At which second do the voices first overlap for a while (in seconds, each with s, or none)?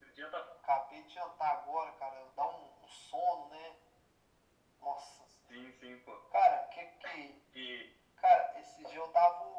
none